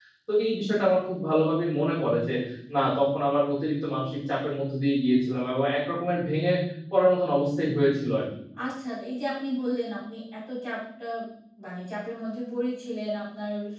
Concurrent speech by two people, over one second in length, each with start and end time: none

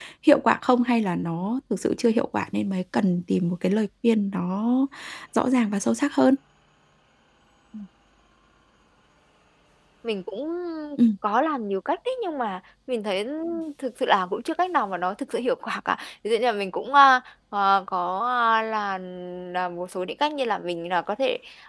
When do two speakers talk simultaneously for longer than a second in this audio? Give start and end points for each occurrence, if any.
none

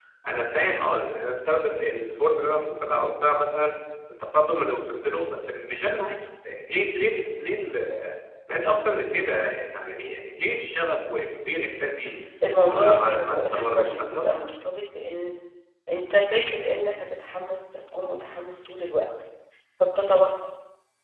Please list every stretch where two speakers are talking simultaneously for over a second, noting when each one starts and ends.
12.7-14.3

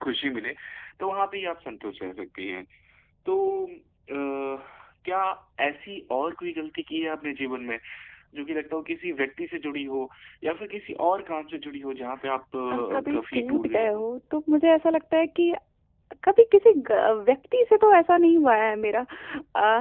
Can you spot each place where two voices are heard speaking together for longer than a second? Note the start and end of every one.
12.7-14.1

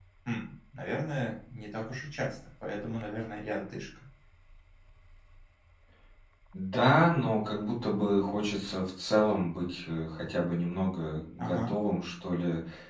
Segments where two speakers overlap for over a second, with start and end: none

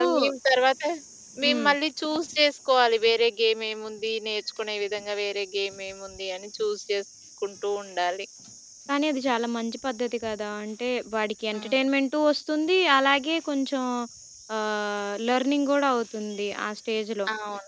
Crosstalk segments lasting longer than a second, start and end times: none

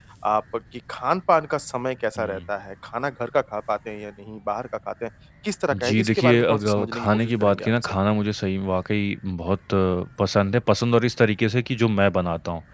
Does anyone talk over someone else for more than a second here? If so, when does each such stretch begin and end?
5.7-7.9

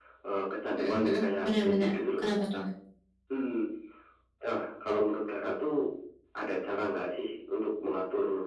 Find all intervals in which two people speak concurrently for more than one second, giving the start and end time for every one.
0.8-2.3

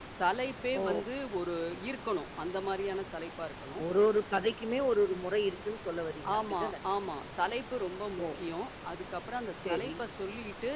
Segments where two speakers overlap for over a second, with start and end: none

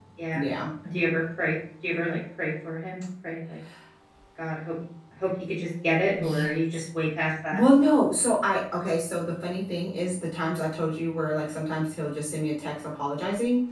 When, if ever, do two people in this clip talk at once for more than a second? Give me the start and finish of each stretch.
none

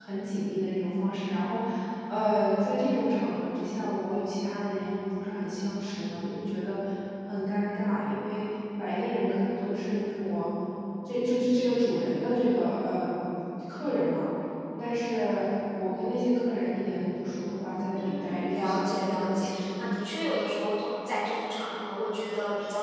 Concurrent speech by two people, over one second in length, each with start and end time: 18.0-19.7

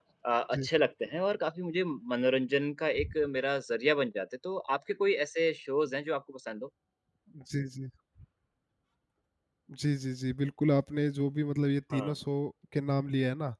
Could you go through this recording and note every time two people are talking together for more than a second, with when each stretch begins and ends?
none

